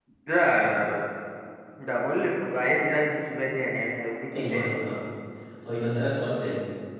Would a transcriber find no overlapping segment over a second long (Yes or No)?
Yes